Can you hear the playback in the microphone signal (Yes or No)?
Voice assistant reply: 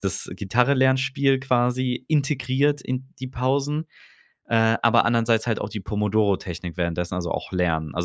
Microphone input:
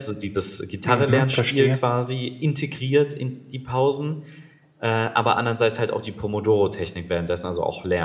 Yes